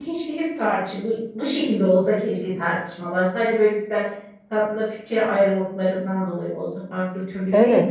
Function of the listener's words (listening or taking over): taking over